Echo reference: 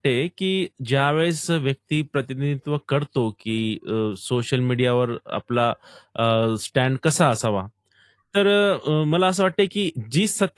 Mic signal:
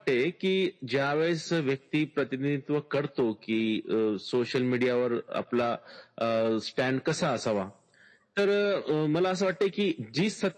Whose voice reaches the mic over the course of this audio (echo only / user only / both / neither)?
echo only